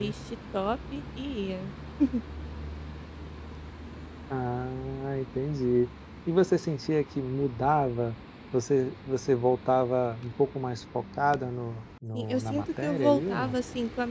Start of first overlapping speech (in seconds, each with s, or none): 12.1 s